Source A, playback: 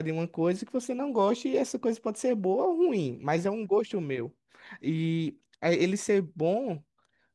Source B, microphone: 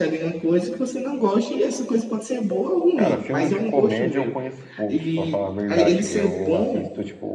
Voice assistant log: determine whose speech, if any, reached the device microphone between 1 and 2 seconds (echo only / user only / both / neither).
echo only